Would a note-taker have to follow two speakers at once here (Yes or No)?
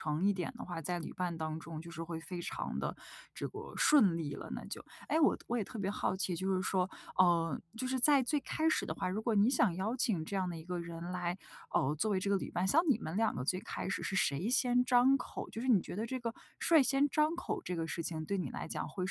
No